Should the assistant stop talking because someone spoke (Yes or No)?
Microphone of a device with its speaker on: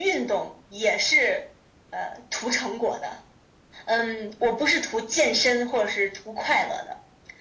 No